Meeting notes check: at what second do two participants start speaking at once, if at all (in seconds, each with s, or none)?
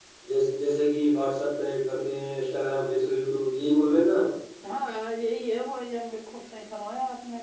none